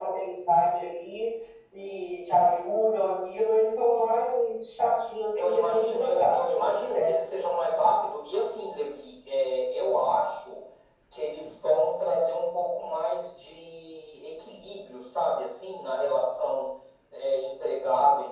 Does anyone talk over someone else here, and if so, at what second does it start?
5 s

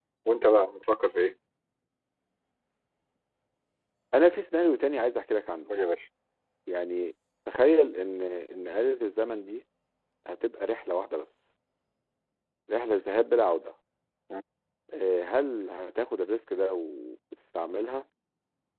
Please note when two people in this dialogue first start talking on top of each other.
none

